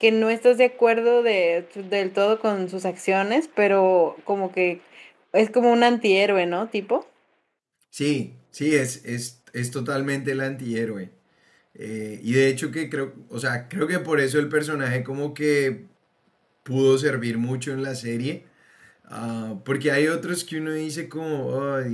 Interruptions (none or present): none